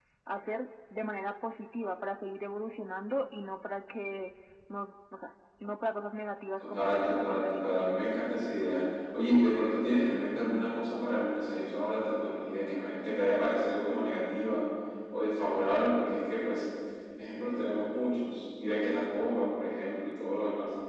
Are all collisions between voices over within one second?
No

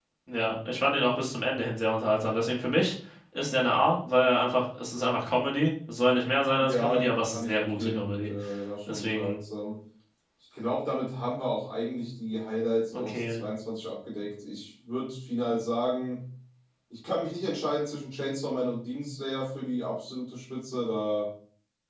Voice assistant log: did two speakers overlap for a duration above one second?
Yes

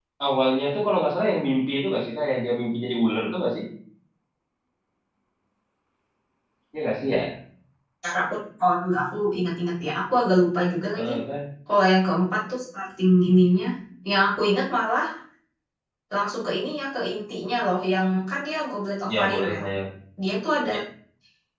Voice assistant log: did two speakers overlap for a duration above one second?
No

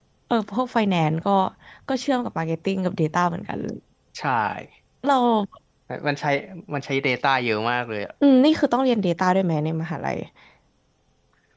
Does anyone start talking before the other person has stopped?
No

